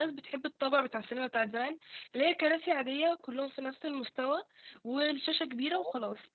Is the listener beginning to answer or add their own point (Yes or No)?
No